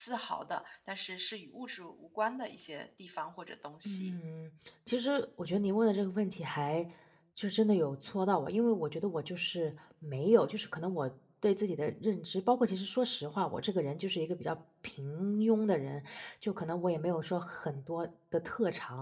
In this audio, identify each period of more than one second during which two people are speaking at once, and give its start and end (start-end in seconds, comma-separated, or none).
none